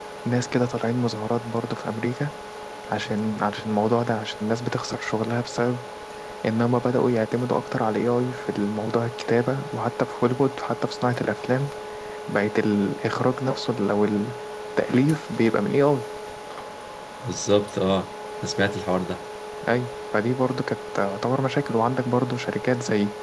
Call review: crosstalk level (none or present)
none